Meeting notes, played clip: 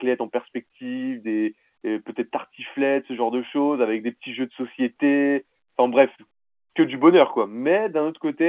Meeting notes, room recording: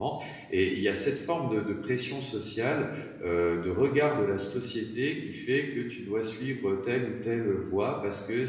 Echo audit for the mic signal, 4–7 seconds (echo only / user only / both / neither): user only